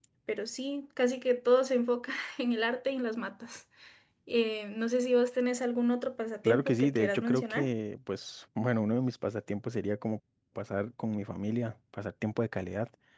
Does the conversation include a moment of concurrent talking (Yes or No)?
Yes